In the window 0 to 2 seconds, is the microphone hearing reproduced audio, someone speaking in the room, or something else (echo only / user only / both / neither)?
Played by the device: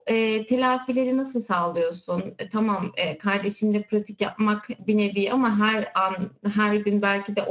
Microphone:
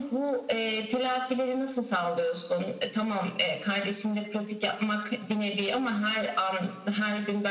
echo only